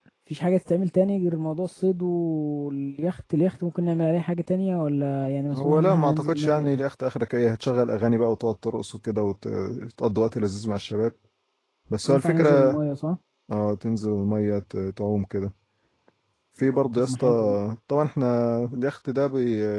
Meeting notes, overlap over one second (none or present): present